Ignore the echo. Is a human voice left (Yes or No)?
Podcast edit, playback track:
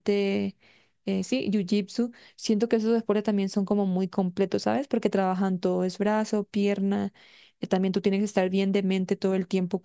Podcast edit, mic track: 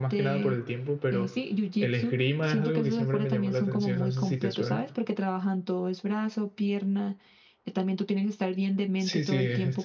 Yes